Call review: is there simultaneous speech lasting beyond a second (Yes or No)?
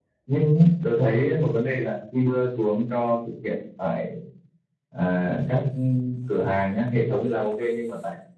No